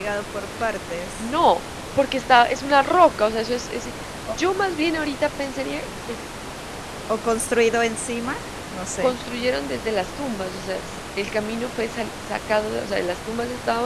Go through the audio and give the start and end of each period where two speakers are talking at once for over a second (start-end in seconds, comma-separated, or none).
none